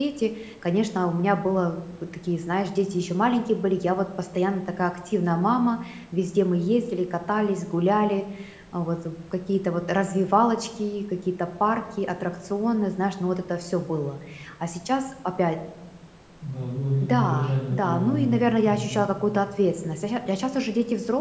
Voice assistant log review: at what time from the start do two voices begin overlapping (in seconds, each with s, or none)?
17.0 s